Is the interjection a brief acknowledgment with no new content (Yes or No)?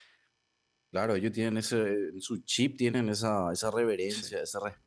Yes